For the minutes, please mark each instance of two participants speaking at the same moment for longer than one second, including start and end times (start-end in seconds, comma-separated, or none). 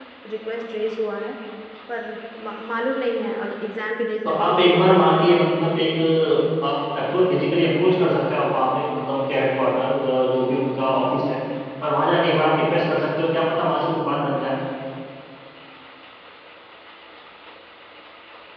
4.3-5.5